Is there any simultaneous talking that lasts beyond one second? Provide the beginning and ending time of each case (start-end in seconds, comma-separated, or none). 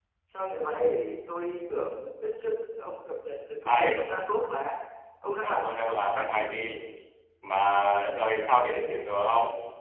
5.4-6.6